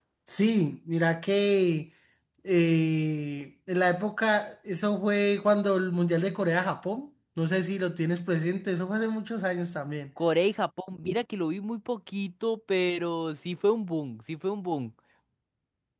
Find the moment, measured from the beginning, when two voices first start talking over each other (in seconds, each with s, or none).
none